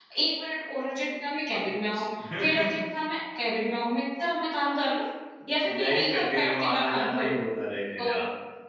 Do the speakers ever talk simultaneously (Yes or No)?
Yes